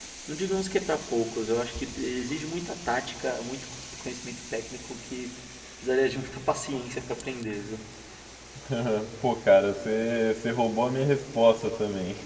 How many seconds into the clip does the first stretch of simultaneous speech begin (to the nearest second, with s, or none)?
none